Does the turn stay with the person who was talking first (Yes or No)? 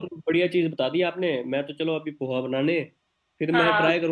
Yes